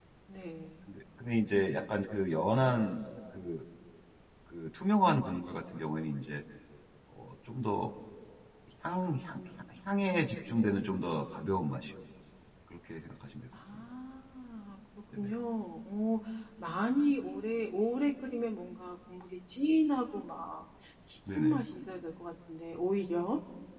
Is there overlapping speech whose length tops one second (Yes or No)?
No